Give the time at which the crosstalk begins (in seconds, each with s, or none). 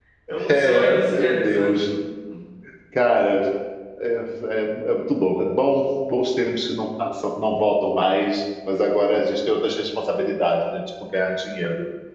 0.5 s